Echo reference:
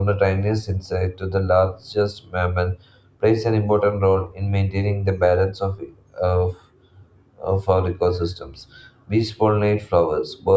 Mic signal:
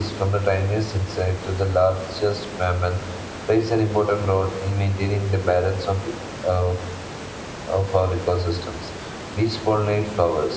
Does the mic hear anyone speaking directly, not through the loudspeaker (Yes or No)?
No